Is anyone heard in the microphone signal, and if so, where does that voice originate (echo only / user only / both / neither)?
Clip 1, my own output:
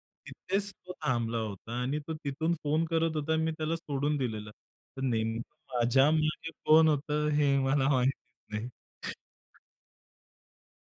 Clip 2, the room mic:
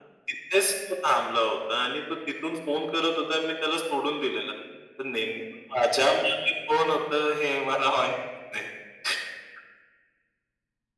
echo only